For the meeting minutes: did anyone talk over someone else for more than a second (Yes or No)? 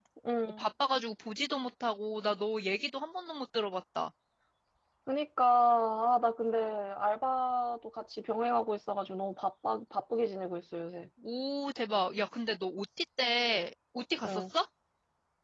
No